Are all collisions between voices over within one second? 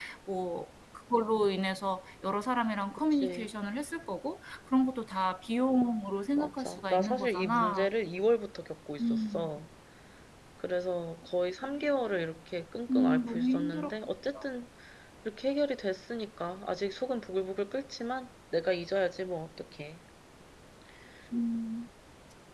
No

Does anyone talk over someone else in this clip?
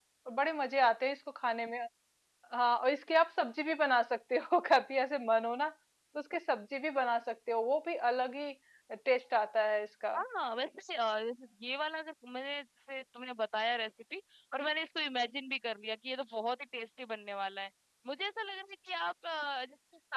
No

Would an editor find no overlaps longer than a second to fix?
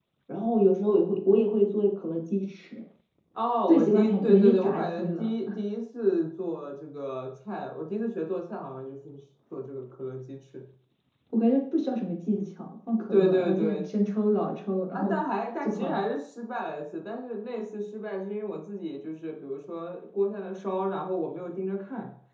No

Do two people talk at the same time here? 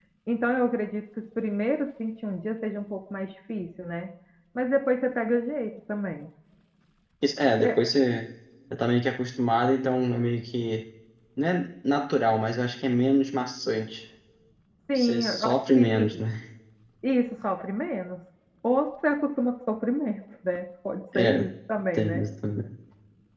Yes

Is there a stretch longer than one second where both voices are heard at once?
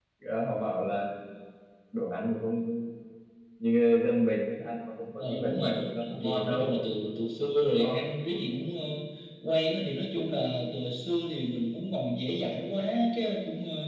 Yes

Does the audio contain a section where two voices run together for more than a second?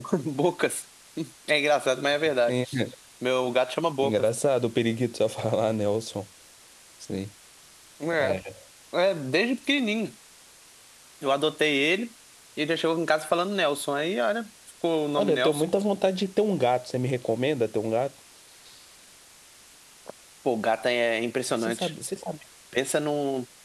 No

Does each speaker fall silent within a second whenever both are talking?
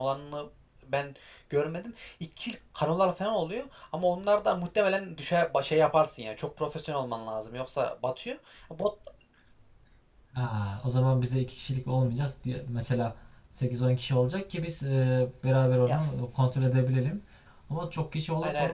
Yes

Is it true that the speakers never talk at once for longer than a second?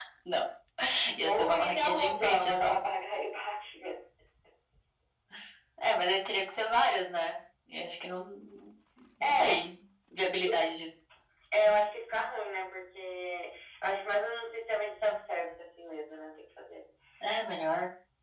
No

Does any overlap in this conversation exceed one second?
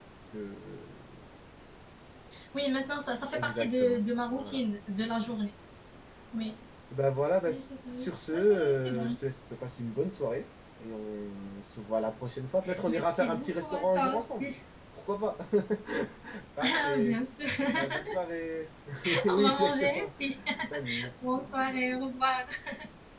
Yes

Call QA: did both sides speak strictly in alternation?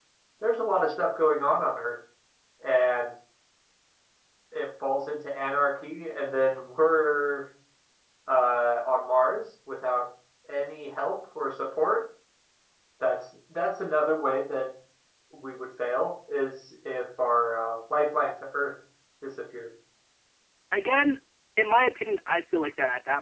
Yes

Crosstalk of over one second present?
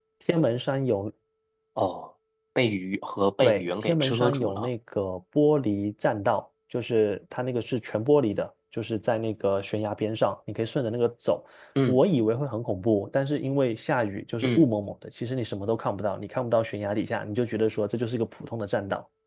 Yes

